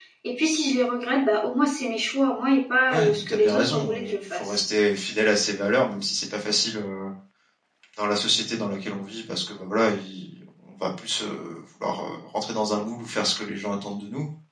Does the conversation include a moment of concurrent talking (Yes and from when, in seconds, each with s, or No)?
Yes, from 2.9 s